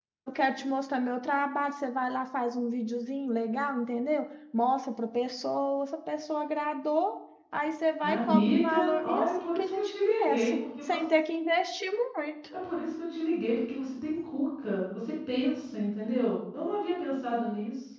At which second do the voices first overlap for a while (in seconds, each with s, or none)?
8.0 s